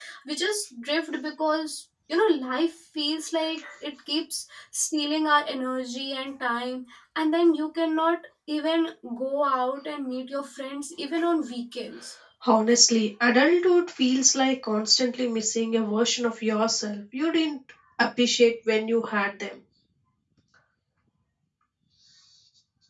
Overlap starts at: none

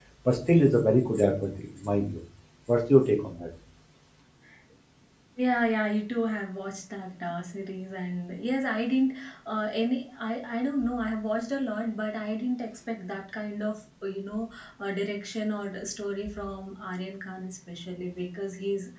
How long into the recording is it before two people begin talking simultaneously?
none

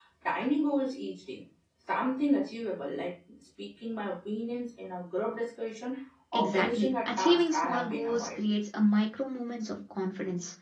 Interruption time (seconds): 6.3 s

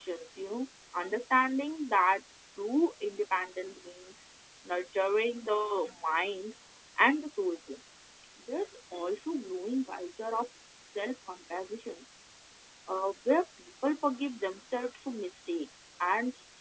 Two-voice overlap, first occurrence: none

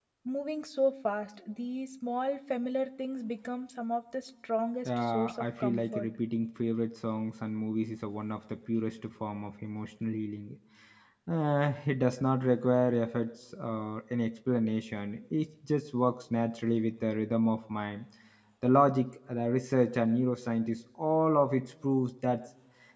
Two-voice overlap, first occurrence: 4.8 s

